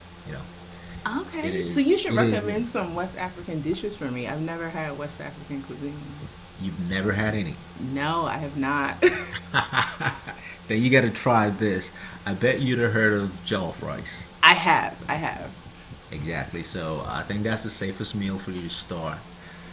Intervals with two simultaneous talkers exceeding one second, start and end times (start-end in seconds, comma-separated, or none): 1.4-2.8